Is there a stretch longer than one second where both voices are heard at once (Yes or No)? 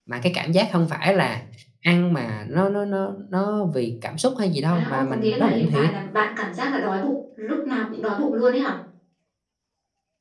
Yes